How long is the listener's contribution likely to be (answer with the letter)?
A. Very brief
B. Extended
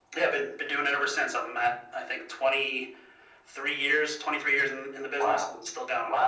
B